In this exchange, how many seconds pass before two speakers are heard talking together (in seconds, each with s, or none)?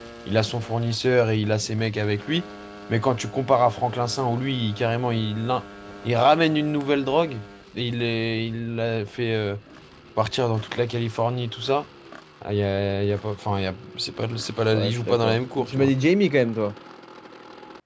14.7 s